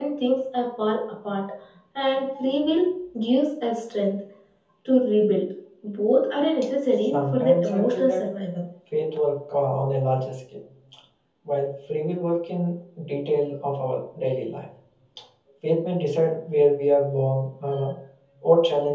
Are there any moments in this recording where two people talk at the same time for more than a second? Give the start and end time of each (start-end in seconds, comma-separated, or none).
6.9-8.2